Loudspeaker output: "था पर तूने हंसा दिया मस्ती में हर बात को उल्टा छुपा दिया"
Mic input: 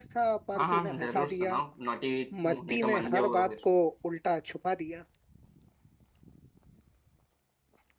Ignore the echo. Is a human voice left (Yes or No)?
Yes